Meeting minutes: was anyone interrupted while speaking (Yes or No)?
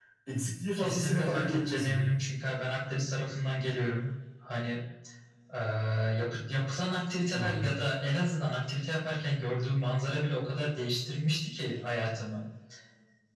Yes